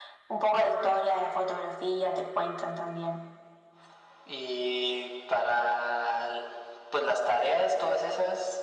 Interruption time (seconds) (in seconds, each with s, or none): none